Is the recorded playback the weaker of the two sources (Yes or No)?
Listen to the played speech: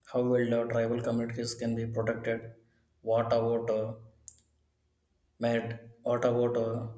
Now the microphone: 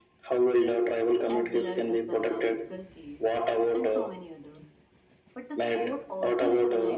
No